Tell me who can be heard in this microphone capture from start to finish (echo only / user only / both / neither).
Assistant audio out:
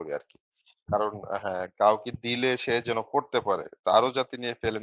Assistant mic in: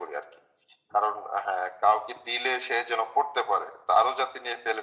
echo only